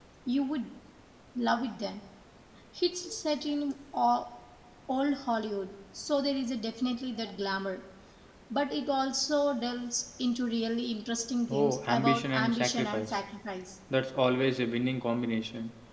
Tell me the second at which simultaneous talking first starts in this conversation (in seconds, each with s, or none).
11.5 s